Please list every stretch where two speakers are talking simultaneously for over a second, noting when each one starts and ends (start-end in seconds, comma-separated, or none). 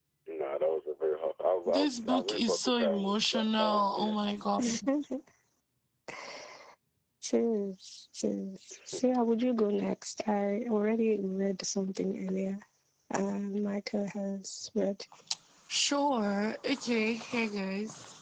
1.7-4.2